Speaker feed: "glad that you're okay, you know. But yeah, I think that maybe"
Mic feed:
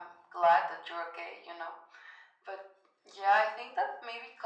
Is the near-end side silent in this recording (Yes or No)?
Yes